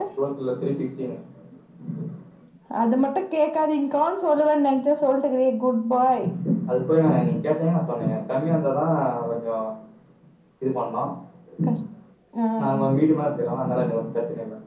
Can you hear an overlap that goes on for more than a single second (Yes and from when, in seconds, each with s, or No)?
No